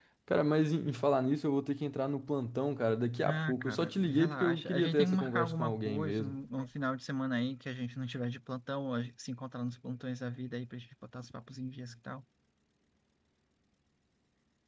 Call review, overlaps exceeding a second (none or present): present